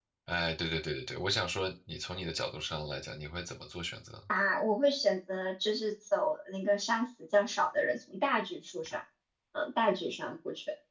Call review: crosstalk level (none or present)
none